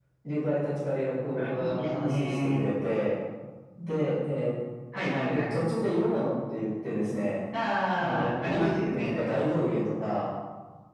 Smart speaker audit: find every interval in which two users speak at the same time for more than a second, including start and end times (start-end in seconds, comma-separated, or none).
1.3-2.6, 8.0-9.4